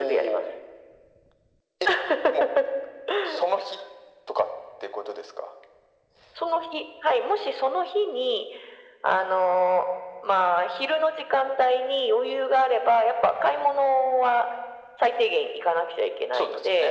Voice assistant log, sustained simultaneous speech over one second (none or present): none